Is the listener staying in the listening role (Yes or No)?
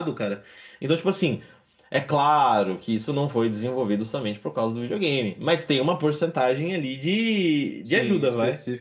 No